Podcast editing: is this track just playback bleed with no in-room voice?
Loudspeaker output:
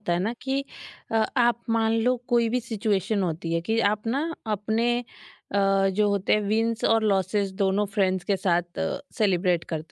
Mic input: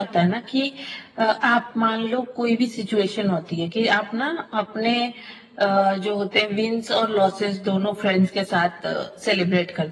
Yes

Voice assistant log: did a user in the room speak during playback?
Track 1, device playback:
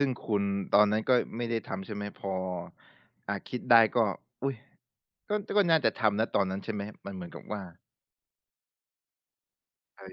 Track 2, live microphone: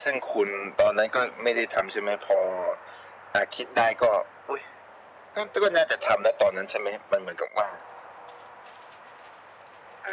No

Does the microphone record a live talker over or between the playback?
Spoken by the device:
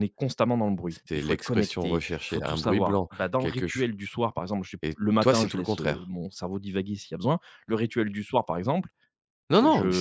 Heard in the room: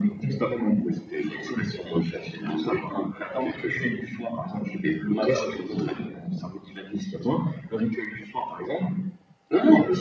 No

